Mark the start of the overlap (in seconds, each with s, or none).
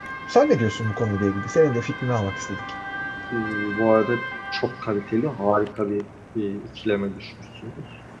none